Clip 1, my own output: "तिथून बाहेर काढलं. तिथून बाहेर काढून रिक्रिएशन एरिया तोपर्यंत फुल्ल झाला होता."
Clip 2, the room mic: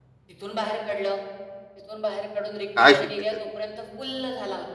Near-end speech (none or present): present